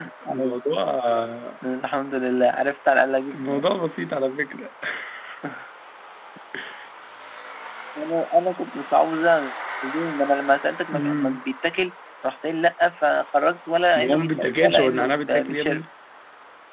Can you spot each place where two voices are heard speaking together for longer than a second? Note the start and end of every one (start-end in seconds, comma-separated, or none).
14.0-15.8